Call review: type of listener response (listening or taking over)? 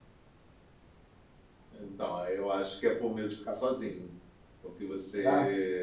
listening